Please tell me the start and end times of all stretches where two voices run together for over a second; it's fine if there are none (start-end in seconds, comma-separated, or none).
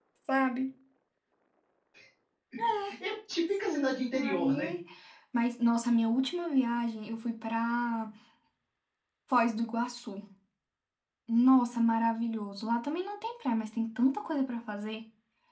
3.5-4.7